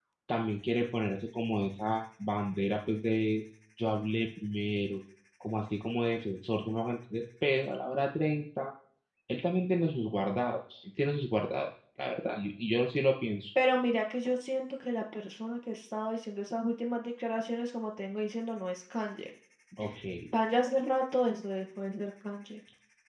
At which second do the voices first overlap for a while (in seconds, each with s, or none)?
none